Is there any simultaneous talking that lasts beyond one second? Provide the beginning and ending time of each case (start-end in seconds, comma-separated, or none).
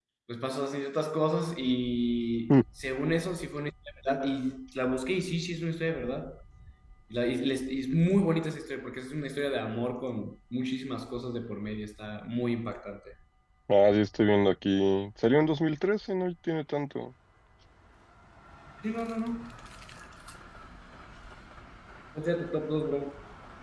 none